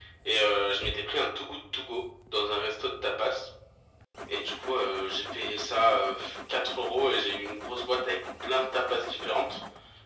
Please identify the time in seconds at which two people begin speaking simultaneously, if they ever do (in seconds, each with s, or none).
none